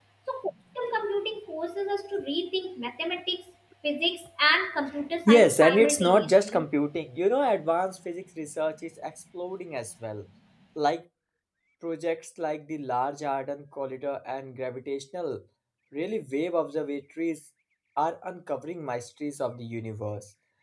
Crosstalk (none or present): present